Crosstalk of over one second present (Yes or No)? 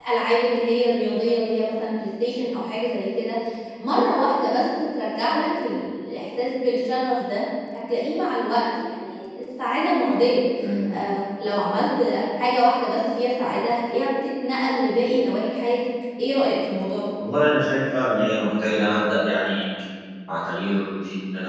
No